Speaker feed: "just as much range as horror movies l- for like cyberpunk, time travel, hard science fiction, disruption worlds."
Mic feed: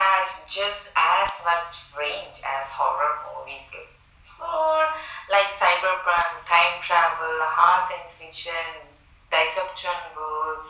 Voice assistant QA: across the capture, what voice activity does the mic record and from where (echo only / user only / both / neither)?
echo only